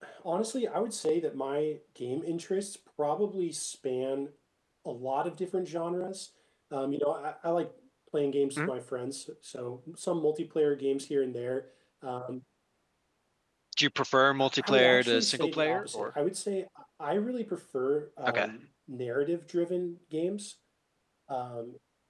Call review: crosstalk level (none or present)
present